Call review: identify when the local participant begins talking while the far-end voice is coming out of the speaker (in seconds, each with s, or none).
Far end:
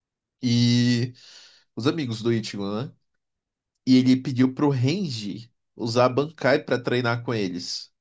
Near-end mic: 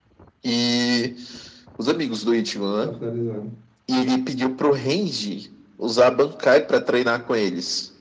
2.8 s